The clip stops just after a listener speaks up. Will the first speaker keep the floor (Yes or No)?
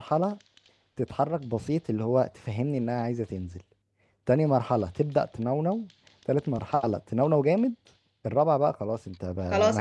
No